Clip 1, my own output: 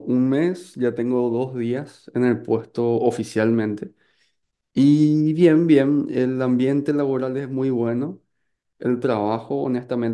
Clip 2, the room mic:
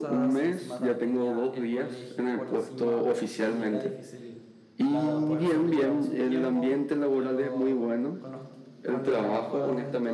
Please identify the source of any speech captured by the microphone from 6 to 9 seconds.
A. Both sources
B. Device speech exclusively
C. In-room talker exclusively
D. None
A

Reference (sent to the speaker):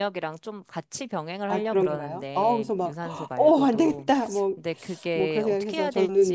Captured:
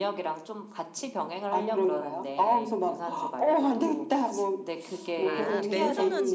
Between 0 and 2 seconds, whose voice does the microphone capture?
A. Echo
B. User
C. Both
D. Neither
A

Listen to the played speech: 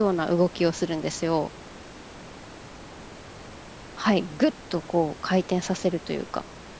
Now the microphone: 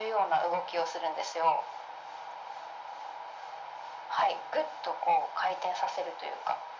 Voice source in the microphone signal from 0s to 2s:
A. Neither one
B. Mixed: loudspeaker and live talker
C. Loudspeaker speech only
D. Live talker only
C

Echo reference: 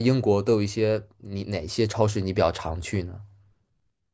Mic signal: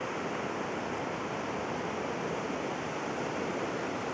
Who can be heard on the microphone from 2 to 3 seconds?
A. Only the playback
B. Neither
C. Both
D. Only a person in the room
B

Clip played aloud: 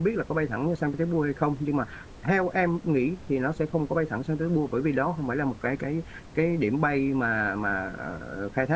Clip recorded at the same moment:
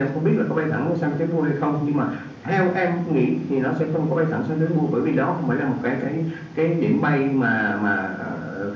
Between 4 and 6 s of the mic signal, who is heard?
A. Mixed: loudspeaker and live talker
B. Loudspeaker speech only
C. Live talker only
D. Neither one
B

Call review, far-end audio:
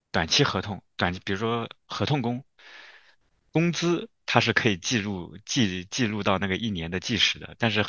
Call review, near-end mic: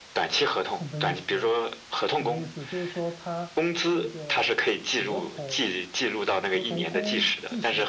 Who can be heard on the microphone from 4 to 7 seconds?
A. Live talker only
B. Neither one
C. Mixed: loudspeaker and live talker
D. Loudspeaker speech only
C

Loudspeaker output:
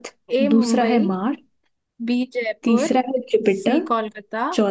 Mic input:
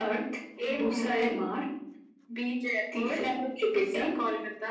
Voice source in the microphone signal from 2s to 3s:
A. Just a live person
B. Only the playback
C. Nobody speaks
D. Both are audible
B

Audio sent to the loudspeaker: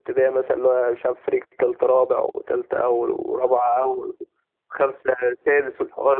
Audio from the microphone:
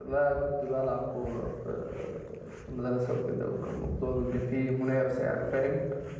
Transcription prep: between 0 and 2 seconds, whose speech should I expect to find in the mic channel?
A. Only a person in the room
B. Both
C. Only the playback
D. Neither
A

